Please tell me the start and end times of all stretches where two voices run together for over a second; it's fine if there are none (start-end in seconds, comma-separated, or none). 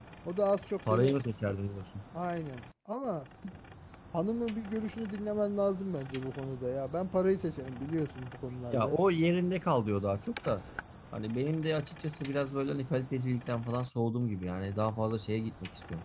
none